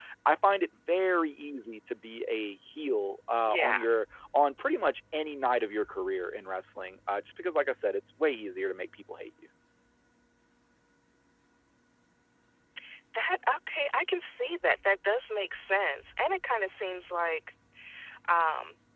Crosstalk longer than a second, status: none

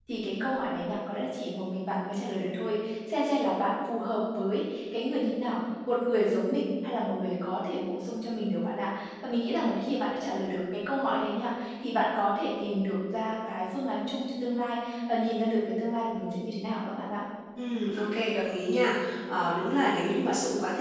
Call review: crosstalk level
none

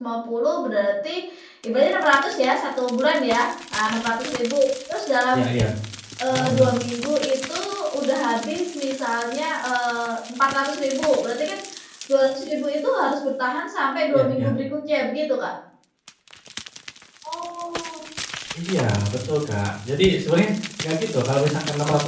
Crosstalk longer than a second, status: none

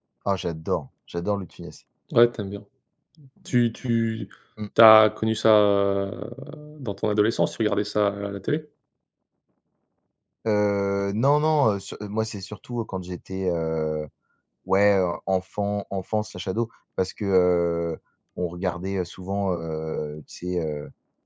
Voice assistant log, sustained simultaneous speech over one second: none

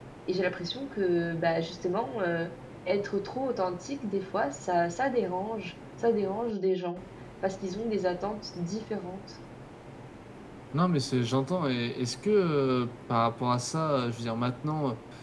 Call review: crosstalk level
none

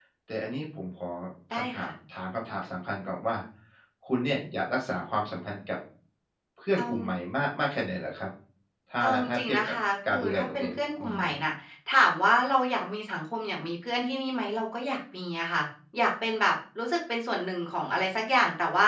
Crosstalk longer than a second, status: present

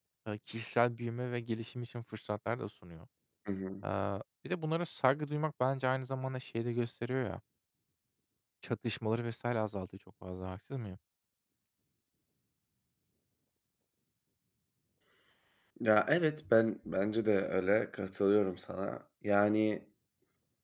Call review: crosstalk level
none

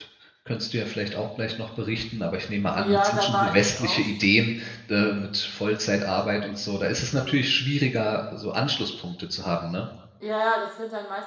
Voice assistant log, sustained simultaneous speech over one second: present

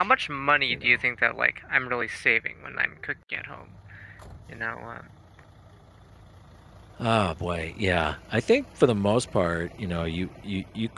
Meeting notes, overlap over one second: none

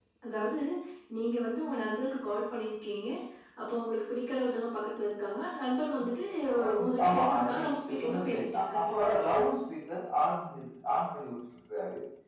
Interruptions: present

